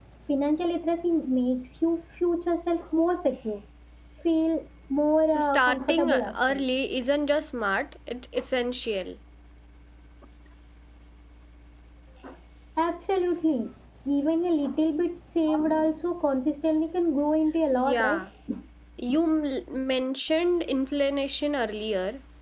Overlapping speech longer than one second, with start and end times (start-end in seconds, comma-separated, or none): 5.3-6.6